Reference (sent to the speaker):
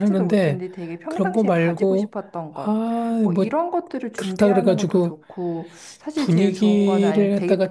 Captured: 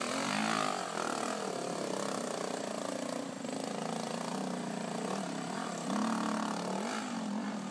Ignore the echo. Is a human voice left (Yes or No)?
No